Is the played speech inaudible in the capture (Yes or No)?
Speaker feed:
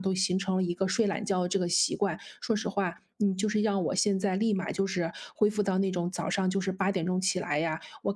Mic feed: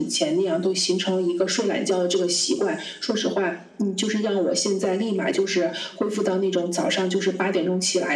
No